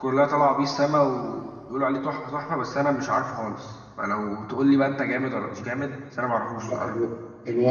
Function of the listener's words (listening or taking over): taking over